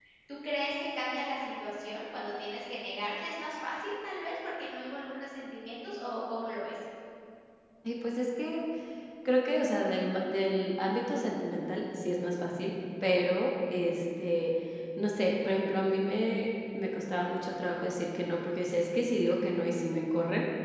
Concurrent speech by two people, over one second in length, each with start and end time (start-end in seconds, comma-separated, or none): none